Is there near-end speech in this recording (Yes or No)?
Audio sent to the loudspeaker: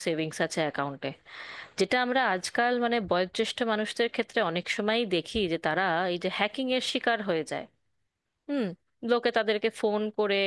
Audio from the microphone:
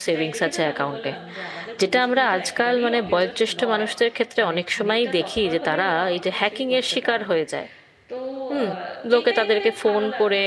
Yes